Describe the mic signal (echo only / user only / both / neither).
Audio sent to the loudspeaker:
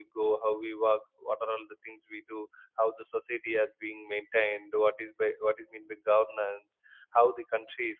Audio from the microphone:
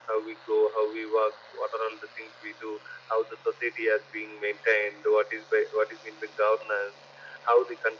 echo only